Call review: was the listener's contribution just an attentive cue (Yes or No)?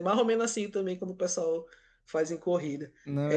Yes